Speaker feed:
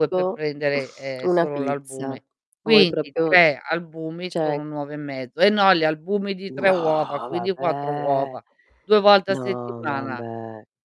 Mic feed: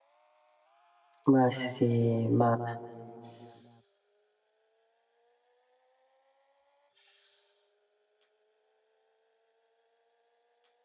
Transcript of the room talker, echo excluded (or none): Ma sì, ma